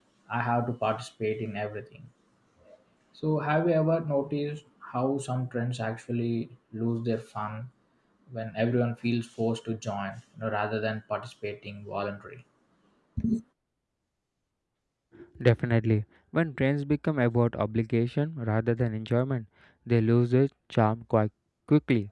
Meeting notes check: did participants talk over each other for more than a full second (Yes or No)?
No